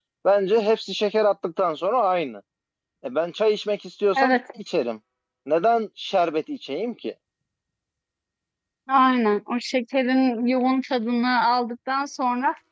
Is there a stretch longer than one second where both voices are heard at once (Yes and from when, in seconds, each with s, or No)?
No